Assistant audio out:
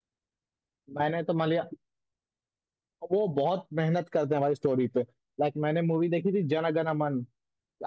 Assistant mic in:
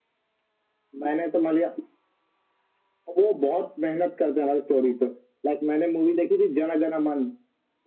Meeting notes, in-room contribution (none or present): none